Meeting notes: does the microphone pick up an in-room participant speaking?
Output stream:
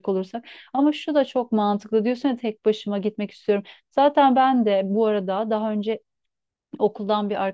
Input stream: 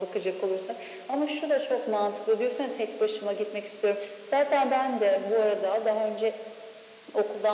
No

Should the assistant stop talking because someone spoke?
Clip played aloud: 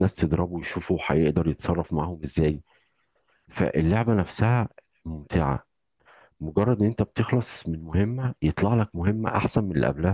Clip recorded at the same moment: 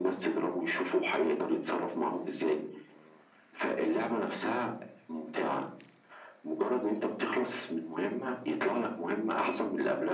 No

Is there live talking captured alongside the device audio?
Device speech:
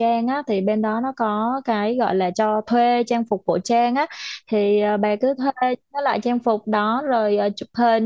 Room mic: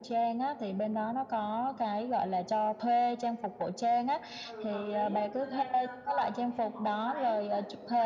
Yes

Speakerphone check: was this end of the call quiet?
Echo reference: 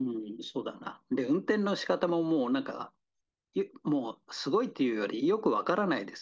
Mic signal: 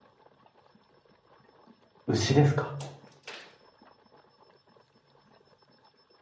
No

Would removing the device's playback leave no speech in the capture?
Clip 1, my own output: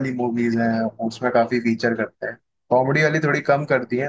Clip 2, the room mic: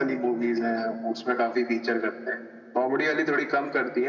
Yes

